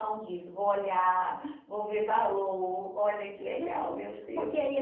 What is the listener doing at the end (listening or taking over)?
taking over